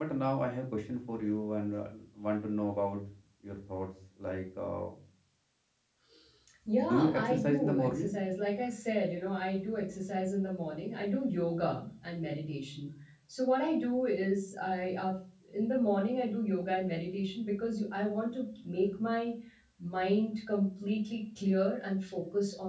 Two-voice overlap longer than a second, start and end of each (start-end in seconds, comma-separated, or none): 6.9-8.1